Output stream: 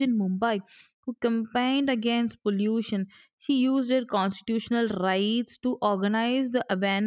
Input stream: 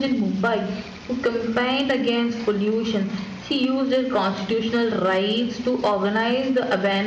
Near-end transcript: none

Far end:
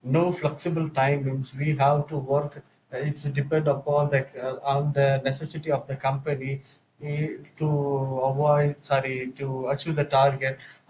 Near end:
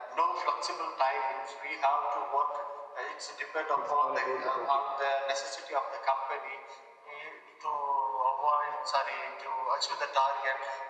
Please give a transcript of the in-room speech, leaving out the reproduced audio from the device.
It's all about the topic.

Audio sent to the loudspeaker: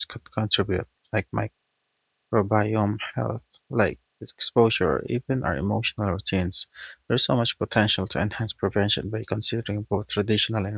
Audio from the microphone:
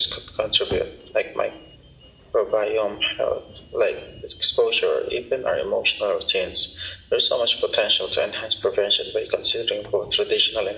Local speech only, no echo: none

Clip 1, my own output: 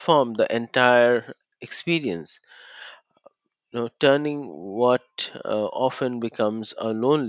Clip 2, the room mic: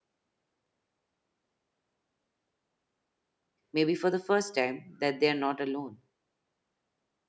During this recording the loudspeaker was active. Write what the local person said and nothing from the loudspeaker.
maybe for the first time that they are not alone

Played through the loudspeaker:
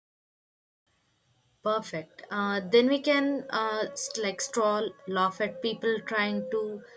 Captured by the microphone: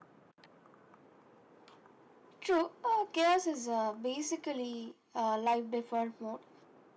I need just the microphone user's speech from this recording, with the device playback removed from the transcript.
True, uh, chaos is uh, basically uh, life default mode.

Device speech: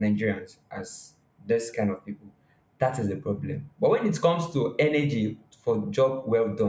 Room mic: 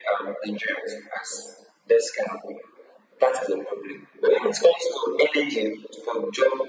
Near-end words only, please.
none

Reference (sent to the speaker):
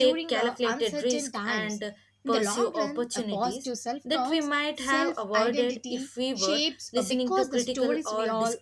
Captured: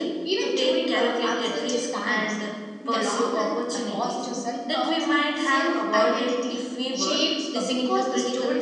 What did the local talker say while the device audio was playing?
none

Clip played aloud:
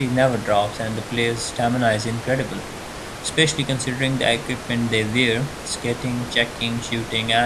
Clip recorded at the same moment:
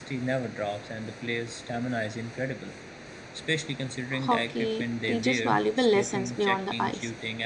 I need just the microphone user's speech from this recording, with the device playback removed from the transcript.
hockey teaches valuable lessons beyond the ice.

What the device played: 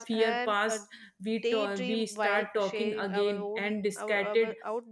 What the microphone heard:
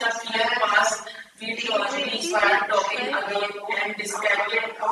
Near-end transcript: uh, it is like felt

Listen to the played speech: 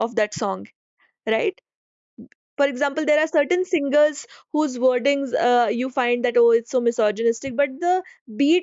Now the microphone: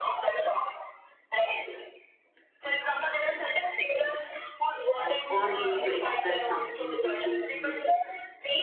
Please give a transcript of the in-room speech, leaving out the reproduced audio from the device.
uh, or we need to express something, we choose music.

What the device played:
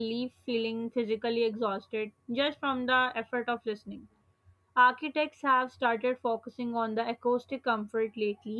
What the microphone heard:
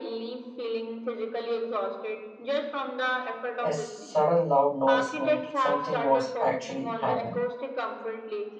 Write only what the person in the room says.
a sudden loud noise meant something was actually happening,

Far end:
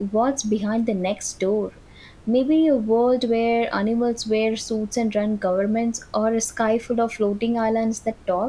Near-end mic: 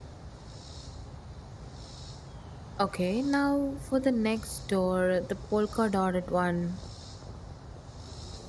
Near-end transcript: Okay, now for the next door, the polka dotted one.

